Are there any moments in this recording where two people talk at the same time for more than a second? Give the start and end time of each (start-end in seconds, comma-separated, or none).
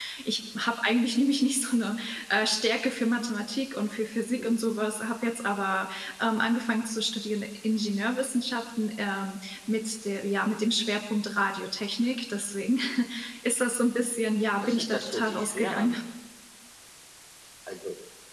14.6-15.9